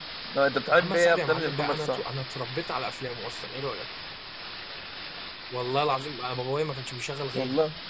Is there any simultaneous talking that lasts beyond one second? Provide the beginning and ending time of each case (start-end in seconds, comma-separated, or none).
0.7-2.0